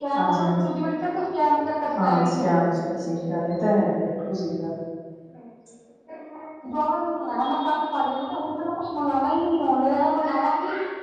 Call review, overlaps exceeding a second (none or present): none